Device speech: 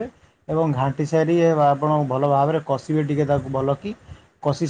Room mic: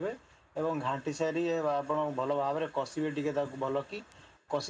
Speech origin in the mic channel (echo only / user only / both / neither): echo only